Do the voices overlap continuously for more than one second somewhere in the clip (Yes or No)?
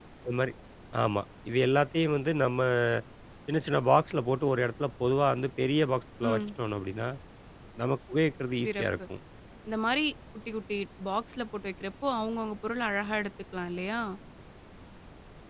No